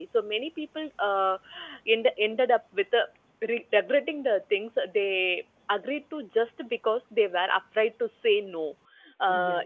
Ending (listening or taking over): listening